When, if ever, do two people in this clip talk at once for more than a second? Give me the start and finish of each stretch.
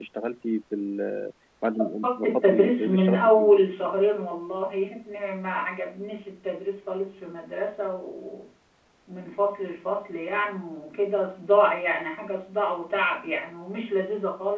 2.0-3.5

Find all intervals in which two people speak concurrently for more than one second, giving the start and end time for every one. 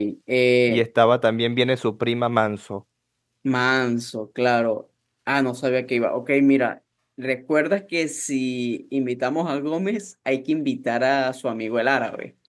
none

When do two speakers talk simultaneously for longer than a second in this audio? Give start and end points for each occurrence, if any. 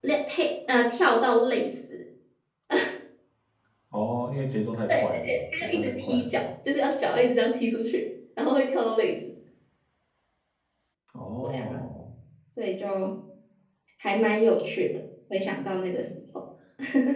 4.9-6.3

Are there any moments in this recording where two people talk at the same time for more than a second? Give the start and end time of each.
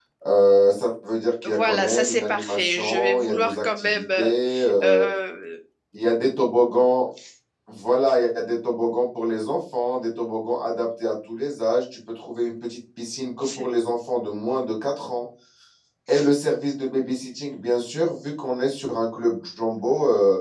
1.4-4.3

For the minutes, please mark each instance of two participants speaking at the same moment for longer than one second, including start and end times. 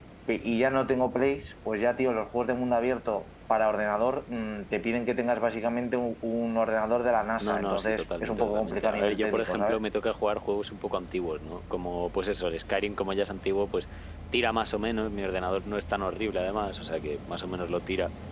7.4-9.8

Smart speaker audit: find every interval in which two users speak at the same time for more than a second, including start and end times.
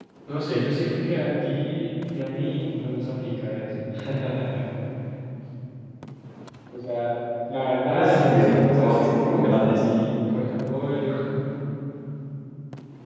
7.9-9.9

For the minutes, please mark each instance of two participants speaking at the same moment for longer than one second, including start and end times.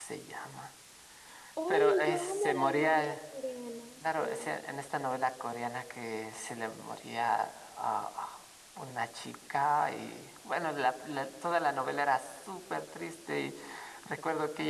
1.7-3.1

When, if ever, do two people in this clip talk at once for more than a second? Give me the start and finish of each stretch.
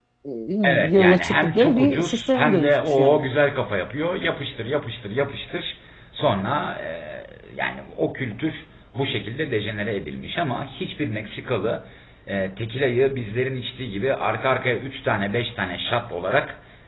0.9-3.3

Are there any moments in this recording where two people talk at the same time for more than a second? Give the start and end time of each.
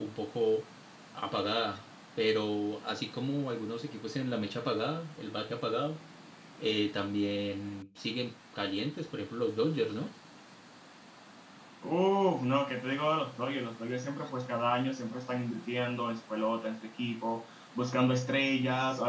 none

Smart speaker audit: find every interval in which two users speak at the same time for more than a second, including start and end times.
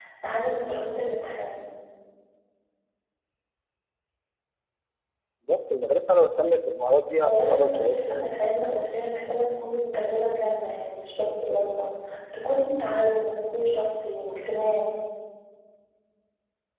7.2-9.0

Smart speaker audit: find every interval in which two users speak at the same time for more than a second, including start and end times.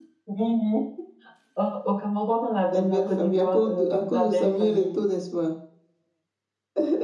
2.7-5.0

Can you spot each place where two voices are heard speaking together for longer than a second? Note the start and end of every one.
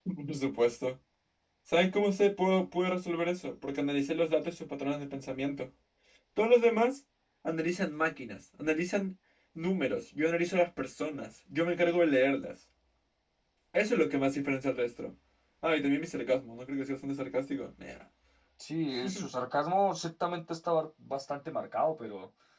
none

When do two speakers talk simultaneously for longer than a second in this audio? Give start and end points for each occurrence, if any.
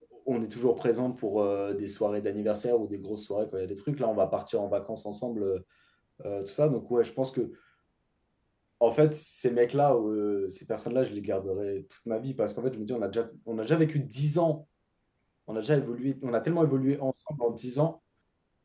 none

